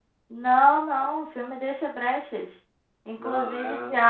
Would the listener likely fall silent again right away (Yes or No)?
Yes